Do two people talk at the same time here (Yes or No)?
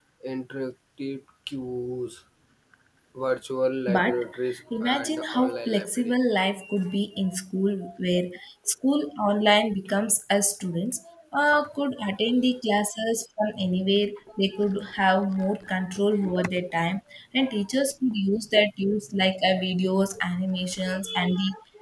Yes